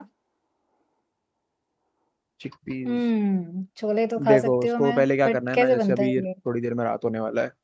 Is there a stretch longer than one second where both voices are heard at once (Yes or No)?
Yes